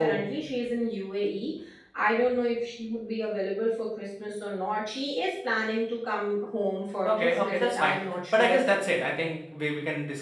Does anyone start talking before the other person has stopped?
Yes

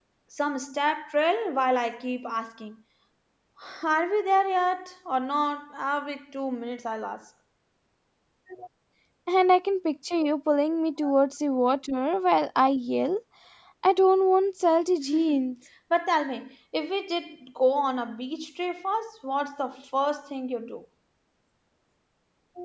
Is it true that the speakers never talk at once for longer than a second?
Yes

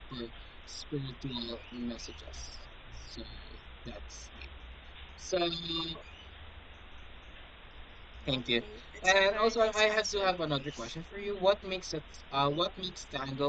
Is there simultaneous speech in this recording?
Yes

